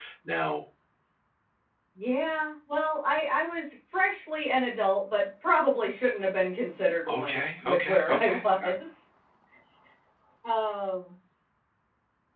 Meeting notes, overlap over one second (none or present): present